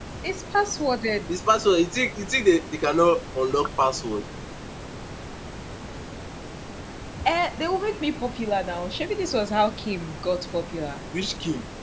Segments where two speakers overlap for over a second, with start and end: none

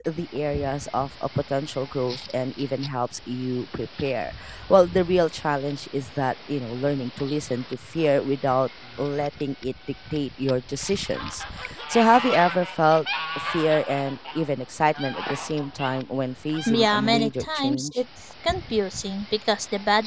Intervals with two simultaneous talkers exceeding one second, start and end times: 16.7-18.0

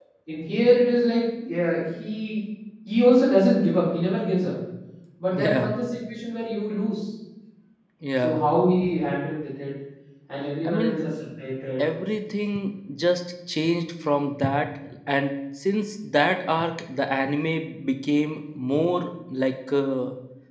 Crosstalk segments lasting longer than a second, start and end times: none

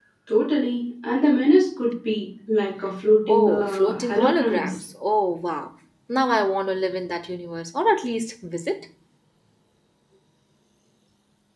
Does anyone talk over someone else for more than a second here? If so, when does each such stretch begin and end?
3.3-4.8

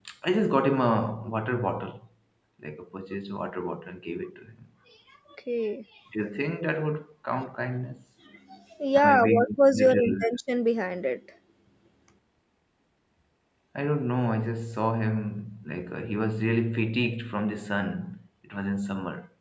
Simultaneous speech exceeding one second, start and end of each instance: 8.9-10.4

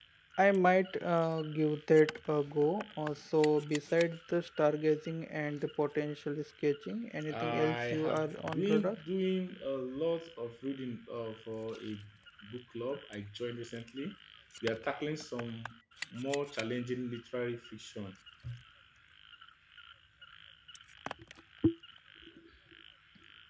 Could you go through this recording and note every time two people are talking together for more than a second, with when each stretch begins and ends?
7.3-9.0

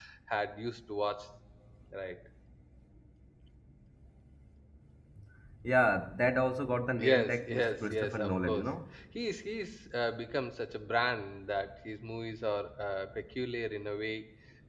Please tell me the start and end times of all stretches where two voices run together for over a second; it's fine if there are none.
7.0-8.7

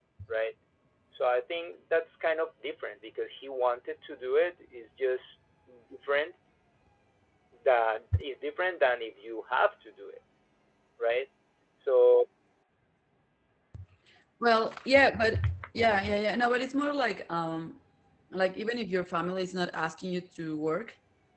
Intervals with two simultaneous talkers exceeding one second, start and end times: none

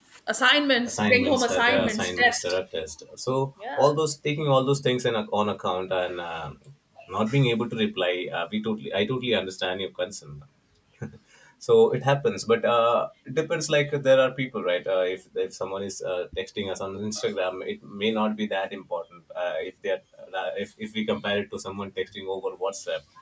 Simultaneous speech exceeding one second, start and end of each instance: 0.9-2.6

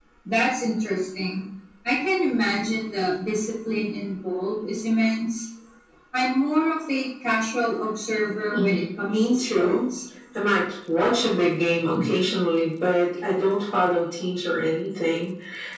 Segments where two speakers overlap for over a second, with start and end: 8.5-9.8

